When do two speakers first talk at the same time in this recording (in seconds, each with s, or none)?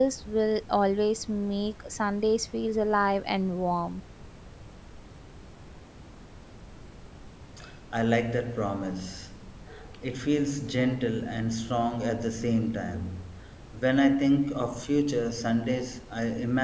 none